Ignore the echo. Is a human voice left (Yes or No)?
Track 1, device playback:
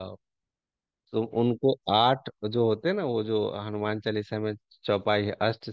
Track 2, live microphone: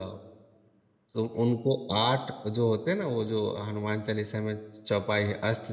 No